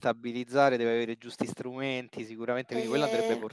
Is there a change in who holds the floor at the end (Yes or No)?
Yes